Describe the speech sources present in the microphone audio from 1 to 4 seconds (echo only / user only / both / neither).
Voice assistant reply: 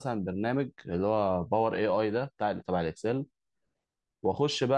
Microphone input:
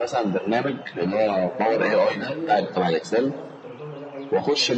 both